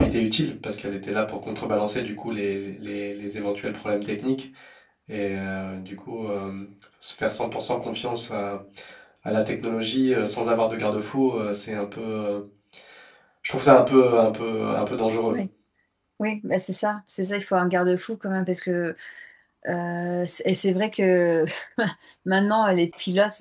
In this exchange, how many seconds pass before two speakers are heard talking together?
none

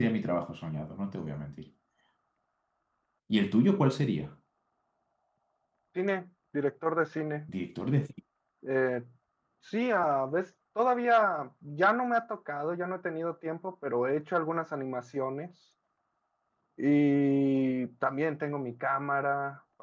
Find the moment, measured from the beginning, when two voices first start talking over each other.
none

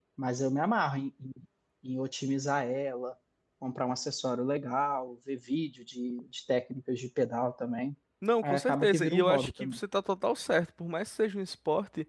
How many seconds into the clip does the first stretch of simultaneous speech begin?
8.4 s

